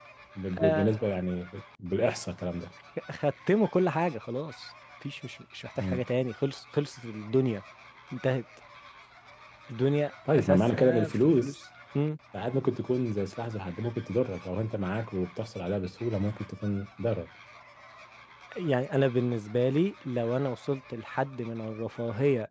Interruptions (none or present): present